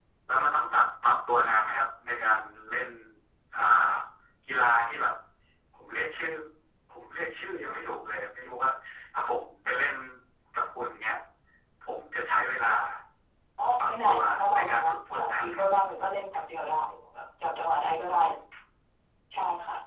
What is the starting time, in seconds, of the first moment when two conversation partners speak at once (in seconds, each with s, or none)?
13.8 s